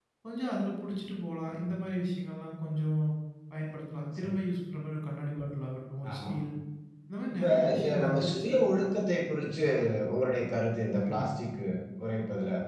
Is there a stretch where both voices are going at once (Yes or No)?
Yes